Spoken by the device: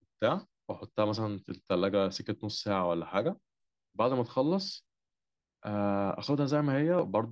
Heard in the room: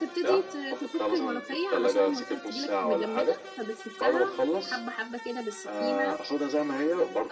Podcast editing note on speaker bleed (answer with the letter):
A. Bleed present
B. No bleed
A